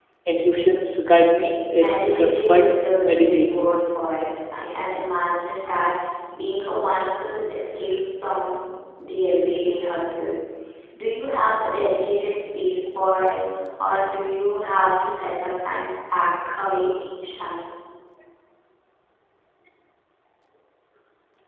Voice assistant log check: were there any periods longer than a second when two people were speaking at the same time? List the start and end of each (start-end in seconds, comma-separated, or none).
1.7-3.5